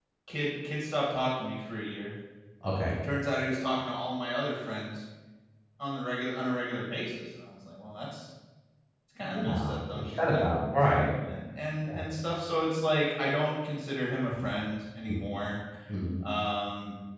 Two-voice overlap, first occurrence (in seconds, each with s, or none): 9.3 s